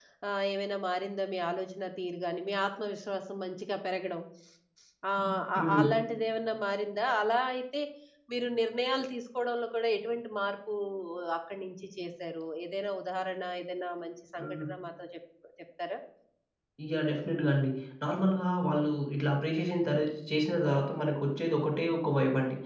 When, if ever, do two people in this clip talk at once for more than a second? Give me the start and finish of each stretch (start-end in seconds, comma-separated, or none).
none